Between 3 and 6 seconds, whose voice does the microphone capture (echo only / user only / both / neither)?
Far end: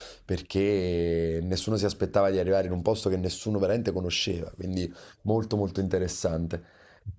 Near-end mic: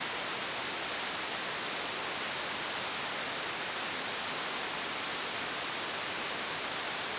neither